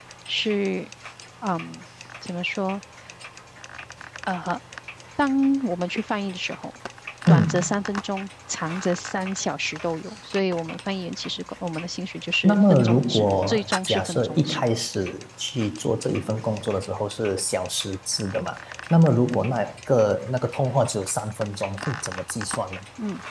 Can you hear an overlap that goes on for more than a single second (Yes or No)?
Yes